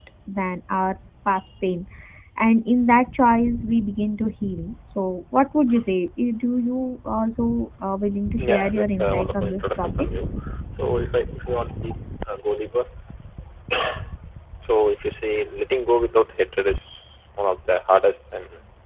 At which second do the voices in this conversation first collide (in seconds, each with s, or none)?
8.4 s